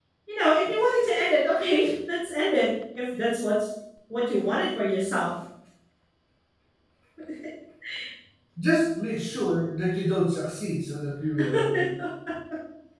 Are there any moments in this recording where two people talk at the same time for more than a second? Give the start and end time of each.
none

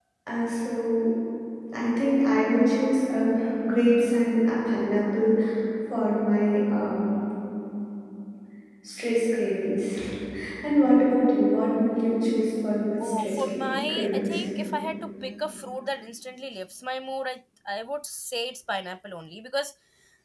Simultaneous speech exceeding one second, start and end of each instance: 13.0-14.4

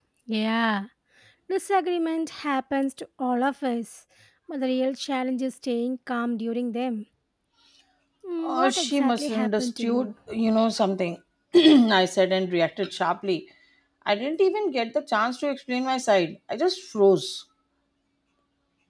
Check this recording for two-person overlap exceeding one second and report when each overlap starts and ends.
8.4-10.1

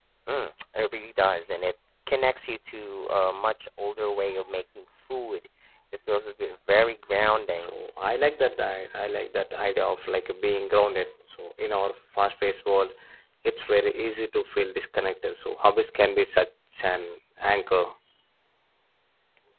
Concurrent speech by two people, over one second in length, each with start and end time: none

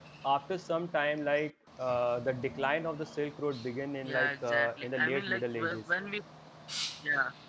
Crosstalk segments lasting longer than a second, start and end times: 4.0-5.8

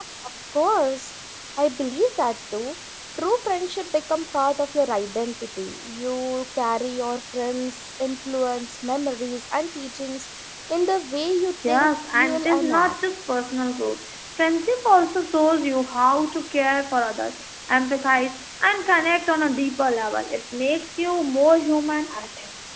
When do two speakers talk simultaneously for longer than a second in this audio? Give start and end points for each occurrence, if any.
11.7-12.9

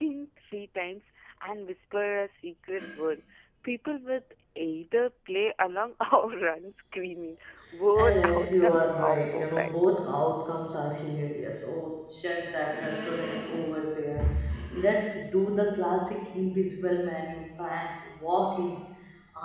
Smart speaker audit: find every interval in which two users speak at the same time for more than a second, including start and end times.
8.0-9.7

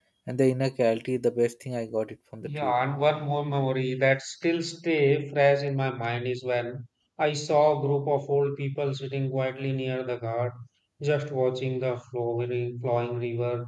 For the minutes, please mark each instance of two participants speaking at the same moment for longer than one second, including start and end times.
none

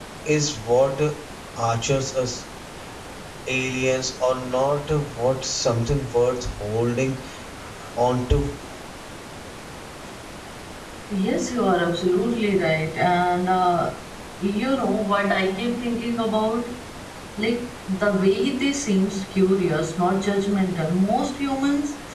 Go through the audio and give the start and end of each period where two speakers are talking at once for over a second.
none

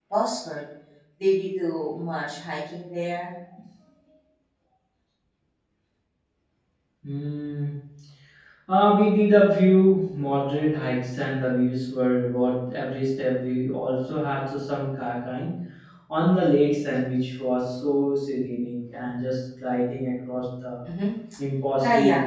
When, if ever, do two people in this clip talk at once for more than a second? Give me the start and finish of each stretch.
none

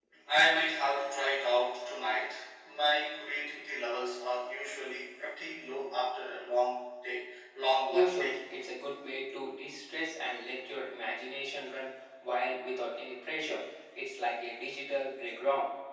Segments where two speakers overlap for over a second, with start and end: none

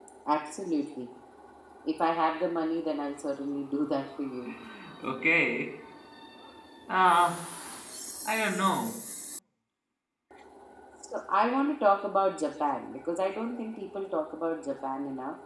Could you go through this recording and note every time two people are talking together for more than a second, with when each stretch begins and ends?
none

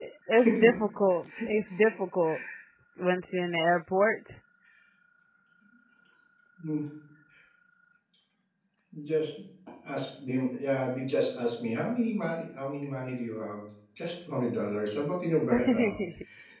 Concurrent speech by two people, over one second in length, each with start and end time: none

